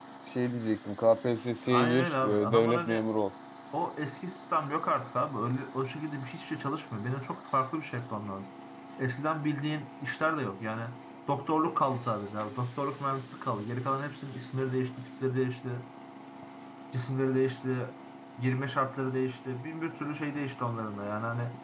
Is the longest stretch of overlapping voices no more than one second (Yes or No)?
No